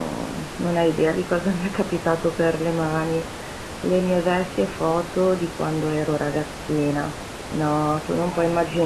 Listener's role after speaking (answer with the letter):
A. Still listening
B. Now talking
A